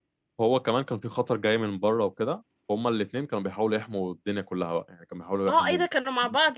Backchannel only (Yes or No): No